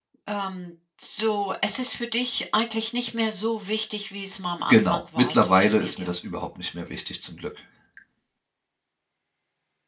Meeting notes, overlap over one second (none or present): present